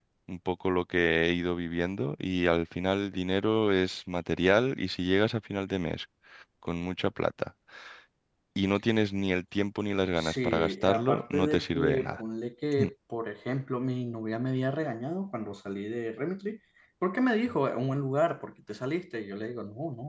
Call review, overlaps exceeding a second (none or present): present